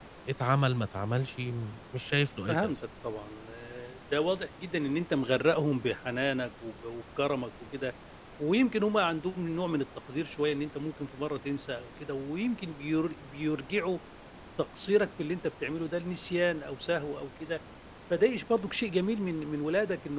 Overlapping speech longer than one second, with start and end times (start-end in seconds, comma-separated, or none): none